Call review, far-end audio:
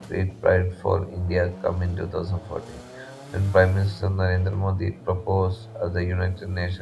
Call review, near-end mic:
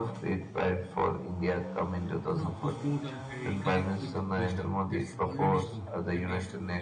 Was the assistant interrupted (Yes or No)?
Yes